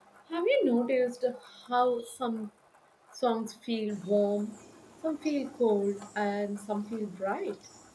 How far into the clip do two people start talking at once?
none

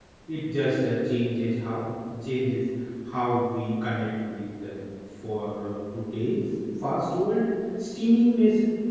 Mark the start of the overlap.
none

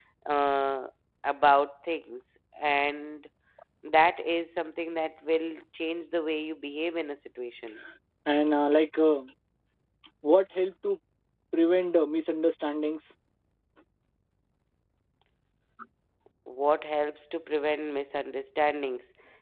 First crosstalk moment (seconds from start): none

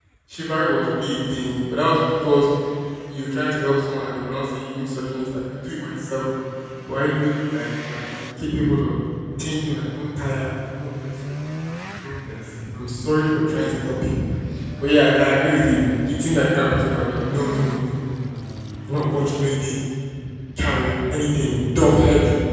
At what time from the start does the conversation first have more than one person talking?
none

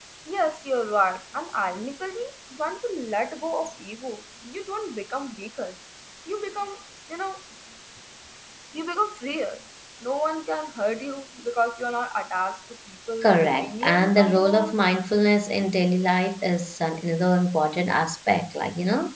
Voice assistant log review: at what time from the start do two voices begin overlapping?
13 s

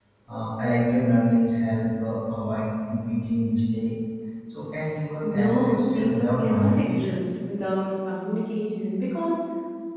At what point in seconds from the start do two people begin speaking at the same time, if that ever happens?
5 s

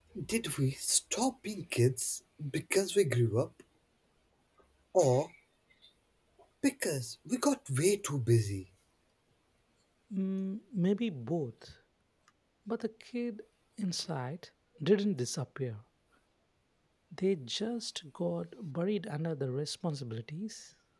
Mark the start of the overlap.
none

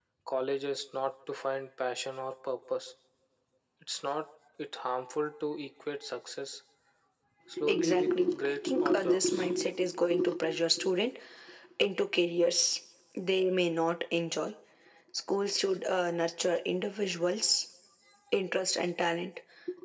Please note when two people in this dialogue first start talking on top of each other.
8 s

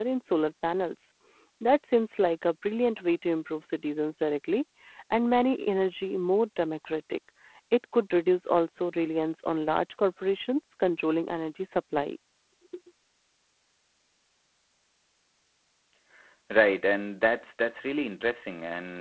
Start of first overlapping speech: none

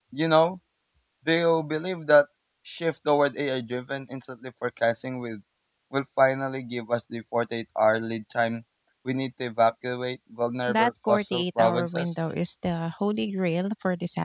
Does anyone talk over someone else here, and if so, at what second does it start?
11 s

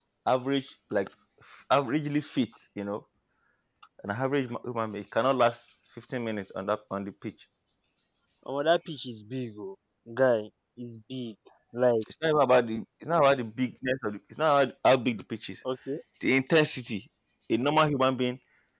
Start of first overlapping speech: none

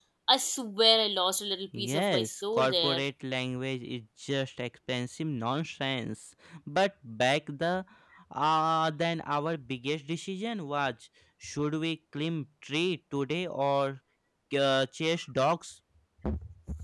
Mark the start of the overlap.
2 s

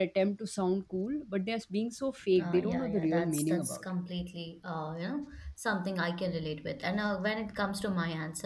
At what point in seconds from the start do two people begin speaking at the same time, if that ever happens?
2 s

